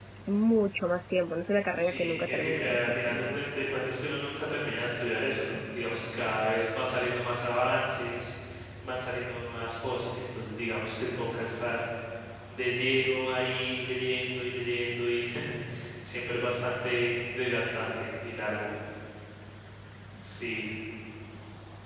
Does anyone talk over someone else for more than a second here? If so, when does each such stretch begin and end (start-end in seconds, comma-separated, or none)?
1.7-3.4